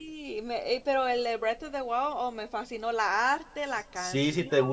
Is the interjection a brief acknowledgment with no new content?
No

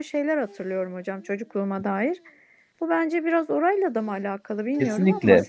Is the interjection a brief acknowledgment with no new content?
No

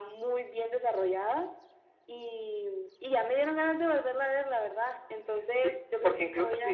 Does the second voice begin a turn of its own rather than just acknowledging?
Yes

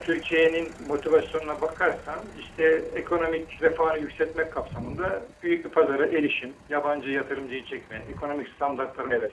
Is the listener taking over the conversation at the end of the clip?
No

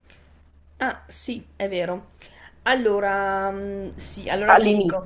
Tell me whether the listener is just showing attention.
Yes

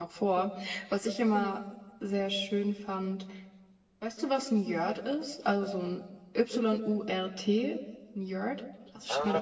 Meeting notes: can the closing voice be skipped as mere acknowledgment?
No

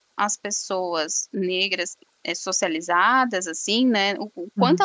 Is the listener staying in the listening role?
Yes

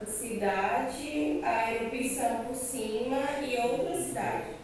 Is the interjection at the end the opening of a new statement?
Yes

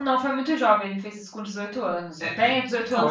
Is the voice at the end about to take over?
No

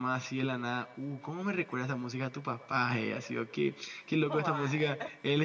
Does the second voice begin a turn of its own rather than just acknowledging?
No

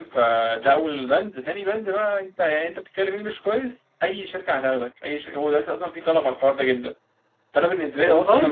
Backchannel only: Yes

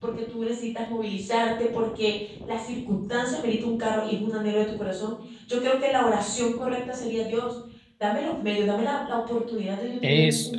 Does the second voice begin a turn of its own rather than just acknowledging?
No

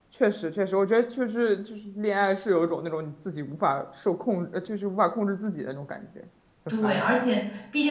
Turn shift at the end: Yes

